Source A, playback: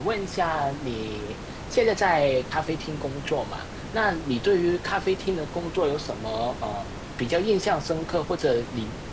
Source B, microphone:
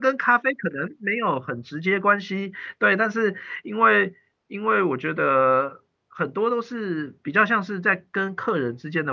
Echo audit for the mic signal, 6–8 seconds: user only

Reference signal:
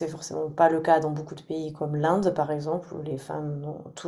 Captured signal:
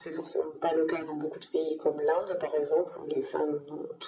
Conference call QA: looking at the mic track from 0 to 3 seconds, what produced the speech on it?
echo only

